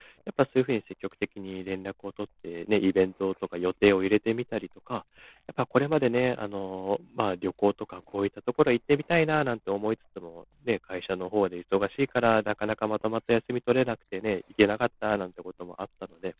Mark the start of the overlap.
none

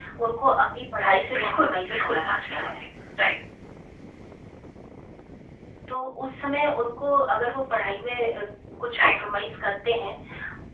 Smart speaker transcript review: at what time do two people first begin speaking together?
1.3 s

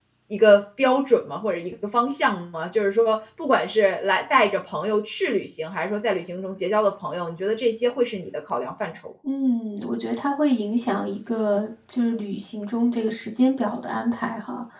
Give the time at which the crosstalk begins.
none

